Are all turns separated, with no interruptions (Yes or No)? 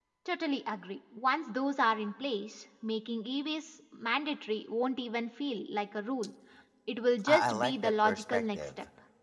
No